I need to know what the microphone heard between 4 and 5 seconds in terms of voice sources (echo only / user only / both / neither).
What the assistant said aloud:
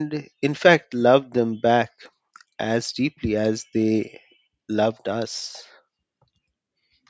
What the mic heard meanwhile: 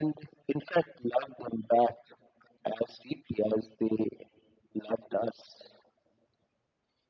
echo only